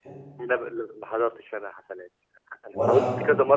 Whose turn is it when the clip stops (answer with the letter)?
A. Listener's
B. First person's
B